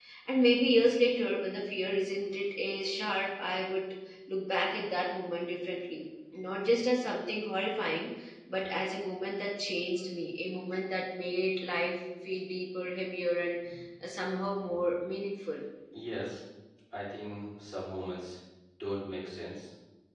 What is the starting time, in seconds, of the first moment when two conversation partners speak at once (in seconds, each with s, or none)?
none